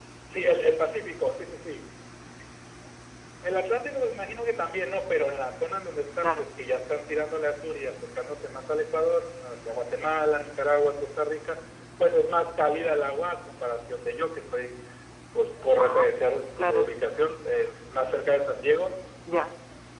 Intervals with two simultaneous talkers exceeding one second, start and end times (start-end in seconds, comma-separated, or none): none